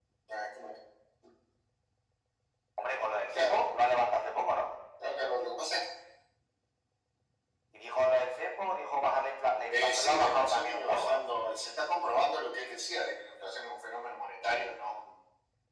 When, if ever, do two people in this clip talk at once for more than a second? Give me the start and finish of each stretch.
9.7-11.2

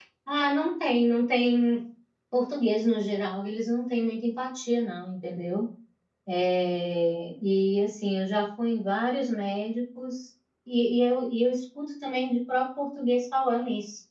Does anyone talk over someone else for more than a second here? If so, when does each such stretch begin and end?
none

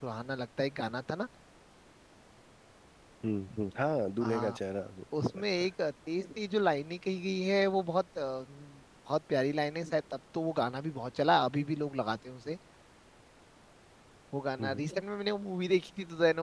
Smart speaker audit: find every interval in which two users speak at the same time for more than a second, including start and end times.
none

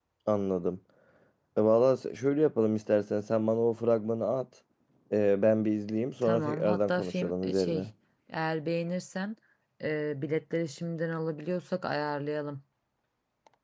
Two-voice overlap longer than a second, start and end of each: 6.2-7.9

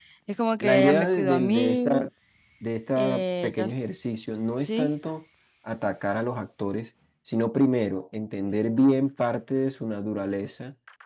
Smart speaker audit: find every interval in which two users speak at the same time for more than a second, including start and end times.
0.6-2.0

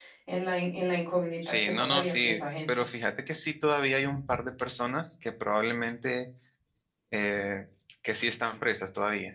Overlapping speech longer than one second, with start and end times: 1.4-2.7

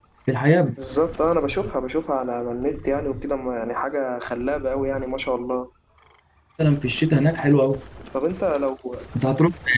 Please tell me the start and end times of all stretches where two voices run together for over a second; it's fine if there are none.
none

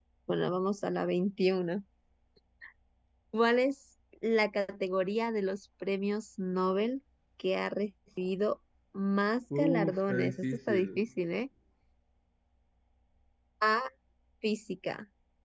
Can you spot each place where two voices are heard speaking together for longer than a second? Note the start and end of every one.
9.6-11.0

